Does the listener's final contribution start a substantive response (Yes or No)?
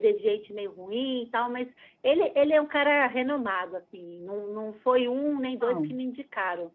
No